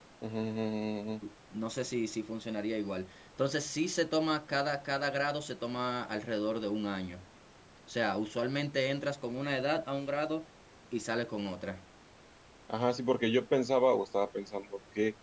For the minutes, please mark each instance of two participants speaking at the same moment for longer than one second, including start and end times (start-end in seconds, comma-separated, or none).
none